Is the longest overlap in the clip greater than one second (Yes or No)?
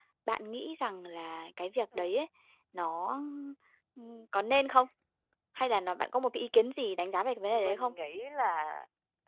No